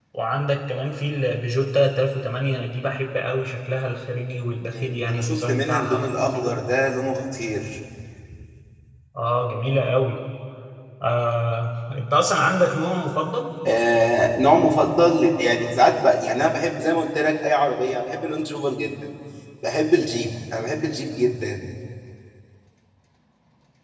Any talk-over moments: Yes, from 4.7 s

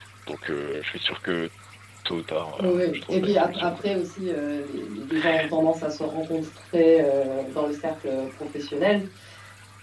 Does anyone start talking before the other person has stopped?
Yes, from 2.6 s

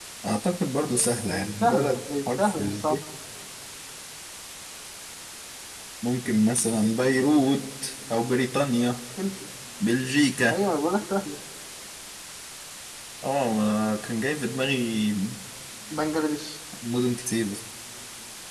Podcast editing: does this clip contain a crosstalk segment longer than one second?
Yes, from 1.3 s

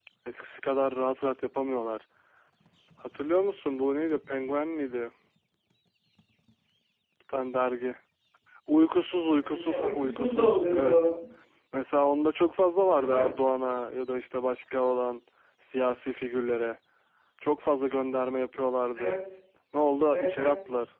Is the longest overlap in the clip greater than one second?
Yes, from 9.4 s

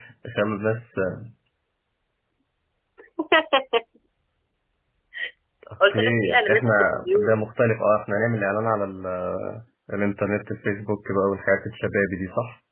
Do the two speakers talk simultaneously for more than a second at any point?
Yes, from 5.9 s

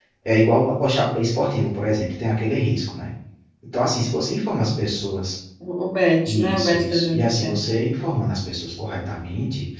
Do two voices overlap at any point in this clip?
Yes, from 6.3 s

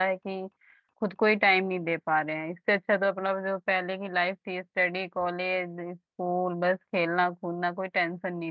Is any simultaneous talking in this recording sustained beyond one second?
No

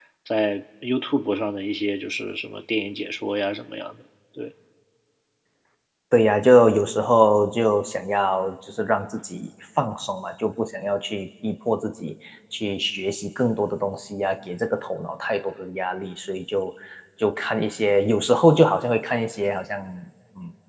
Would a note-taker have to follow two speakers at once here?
No

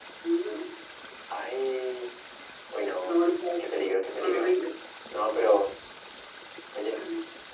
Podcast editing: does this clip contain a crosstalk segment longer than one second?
No

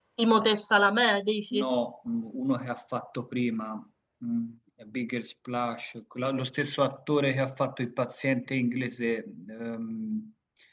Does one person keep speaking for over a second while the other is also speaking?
No

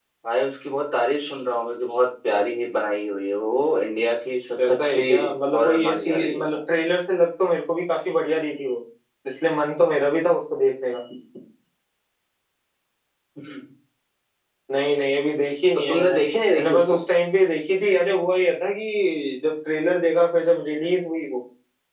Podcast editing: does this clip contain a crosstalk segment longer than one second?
Yes, from 4.7 s

